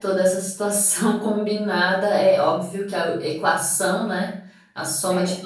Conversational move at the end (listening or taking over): listening